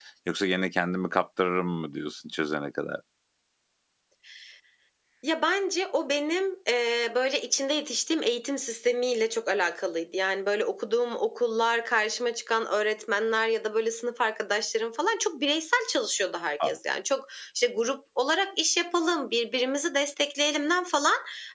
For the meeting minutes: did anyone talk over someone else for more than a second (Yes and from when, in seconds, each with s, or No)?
No